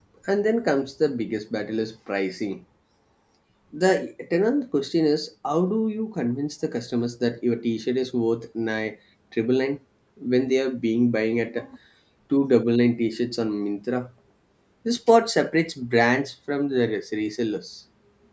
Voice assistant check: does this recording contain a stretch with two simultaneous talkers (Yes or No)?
No